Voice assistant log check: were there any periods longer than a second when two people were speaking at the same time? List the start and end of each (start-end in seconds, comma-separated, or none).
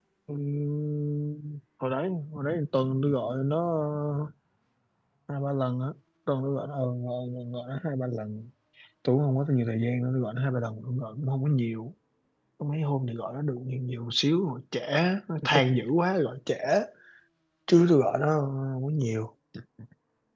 none